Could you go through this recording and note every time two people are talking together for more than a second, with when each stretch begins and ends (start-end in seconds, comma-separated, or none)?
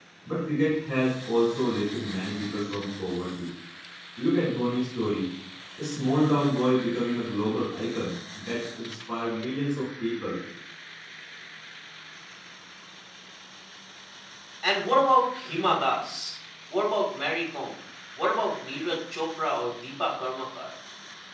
none